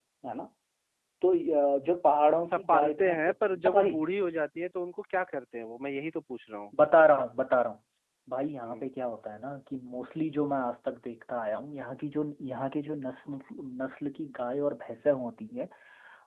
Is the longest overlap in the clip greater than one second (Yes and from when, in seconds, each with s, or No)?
Yes, from 2.5 s